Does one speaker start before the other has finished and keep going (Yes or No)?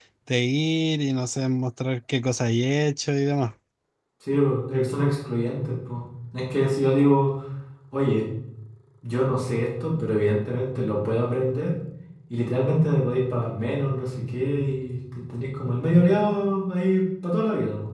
No